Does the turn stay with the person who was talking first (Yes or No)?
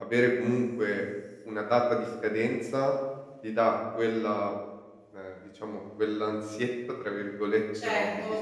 No